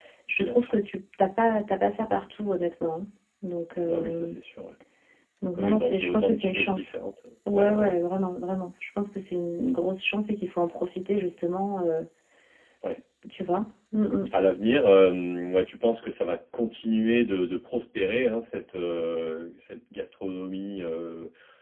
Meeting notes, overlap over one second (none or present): present